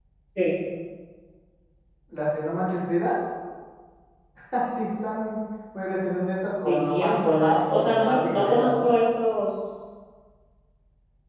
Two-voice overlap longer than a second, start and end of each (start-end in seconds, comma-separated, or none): 6.6-8.9